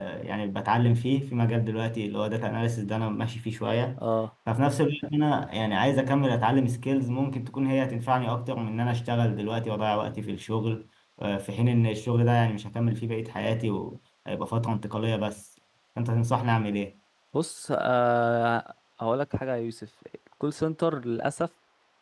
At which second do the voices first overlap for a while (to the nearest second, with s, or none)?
none